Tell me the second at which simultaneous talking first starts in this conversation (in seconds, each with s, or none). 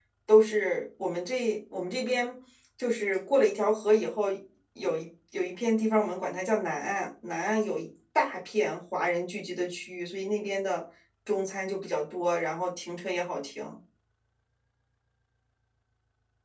none